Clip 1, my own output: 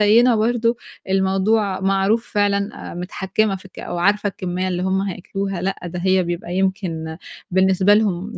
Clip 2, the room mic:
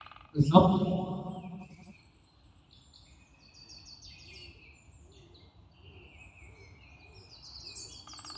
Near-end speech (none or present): present